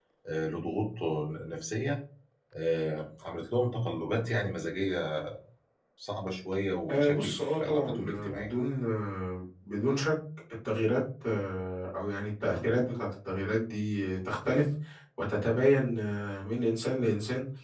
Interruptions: present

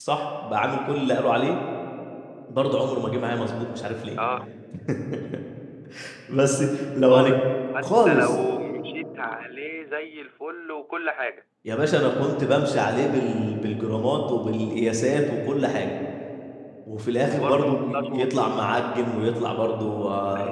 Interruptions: present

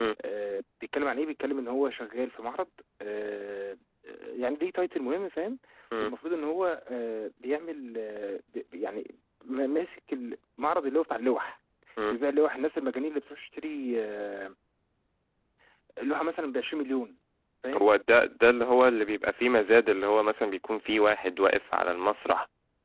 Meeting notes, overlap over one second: none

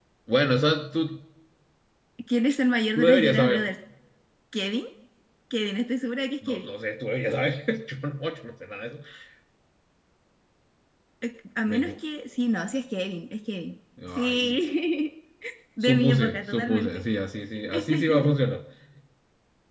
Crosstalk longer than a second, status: present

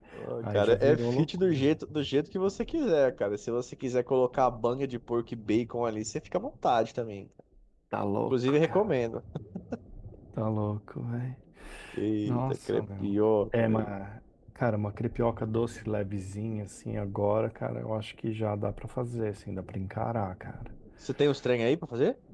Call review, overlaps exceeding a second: present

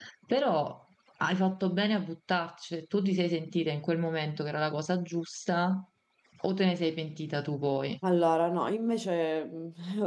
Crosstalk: none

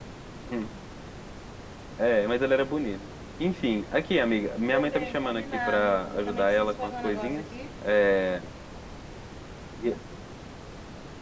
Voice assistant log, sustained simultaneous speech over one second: present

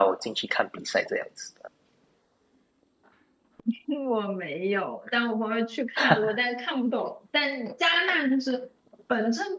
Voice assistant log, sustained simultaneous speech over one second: none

